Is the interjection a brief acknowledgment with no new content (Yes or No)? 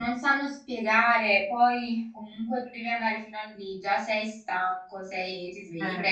Yes